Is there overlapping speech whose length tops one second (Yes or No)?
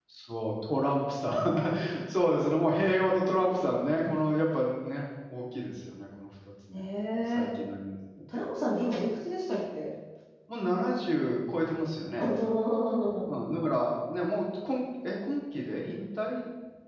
No